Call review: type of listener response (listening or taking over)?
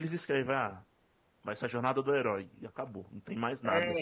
taking over